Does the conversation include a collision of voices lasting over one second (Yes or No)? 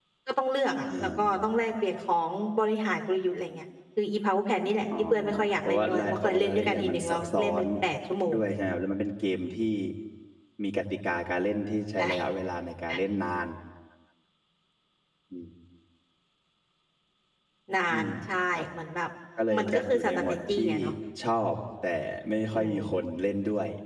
Yes